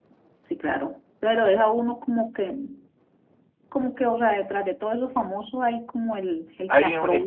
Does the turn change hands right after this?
Yes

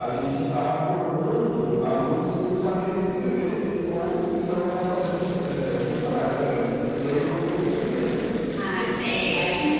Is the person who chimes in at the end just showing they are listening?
No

